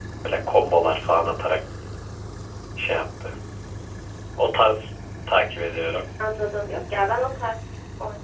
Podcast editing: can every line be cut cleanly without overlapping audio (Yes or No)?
Yes